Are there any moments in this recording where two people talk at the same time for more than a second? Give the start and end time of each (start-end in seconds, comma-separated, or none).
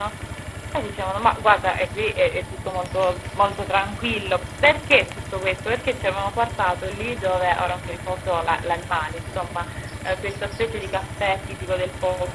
none